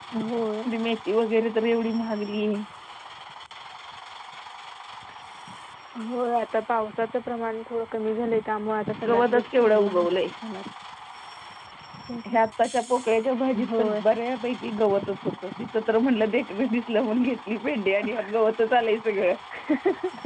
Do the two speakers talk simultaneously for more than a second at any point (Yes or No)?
Yes